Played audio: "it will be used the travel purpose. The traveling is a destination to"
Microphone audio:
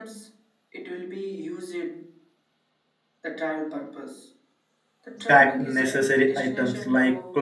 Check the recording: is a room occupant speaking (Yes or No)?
Yes